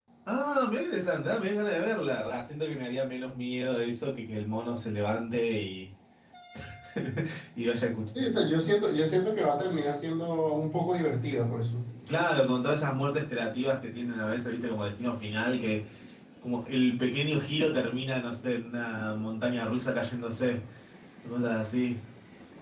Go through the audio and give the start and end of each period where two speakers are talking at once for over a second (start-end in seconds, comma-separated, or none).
none